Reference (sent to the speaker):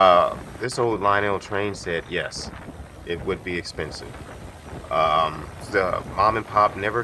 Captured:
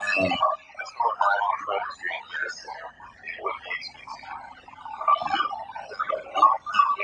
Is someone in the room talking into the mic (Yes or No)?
No